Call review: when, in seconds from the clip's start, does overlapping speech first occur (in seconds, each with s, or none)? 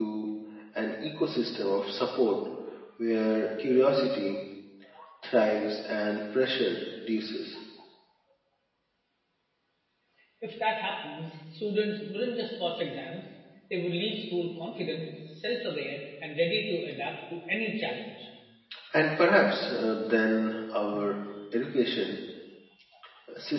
none